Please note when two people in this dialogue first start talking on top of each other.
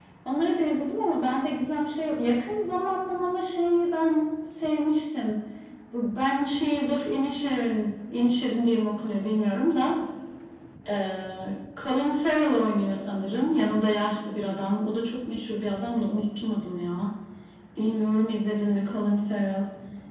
none

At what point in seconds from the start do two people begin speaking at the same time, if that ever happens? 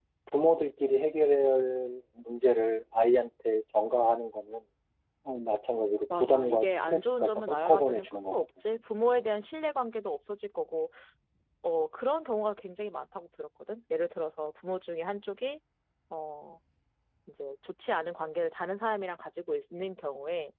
6.1 s

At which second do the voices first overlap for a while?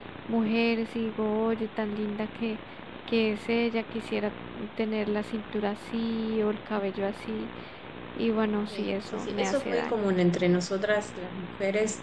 8.7 s

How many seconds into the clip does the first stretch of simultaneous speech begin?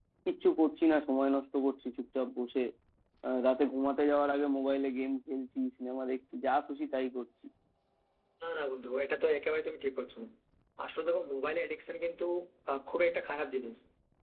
none

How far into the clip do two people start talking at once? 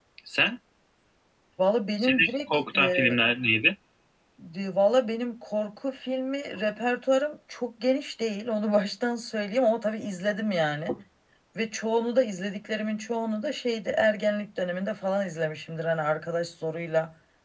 2.0 s

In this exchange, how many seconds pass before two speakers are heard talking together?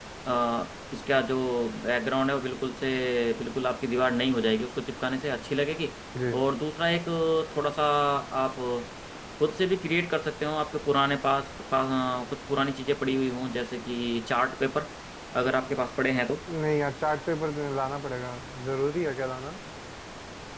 none

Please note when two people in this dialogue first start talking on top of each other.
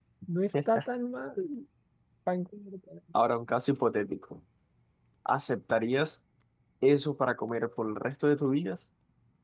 none

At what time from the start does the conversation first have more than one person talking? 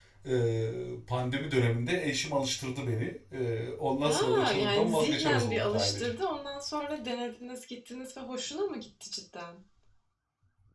4.0 s

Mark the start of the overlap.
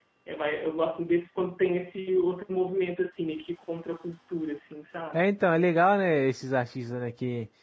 none

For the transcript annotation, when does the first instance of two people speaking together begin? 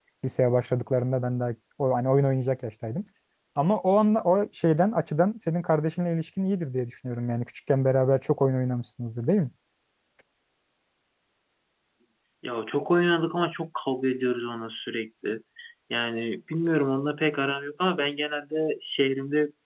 none

